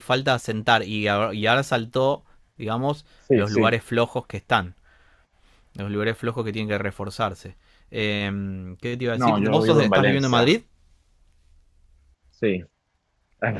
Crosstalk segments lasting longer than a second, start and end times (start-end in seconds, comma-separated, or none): 9.2-10.5